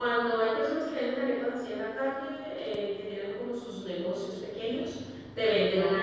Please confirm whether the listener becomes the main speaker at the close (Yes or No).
No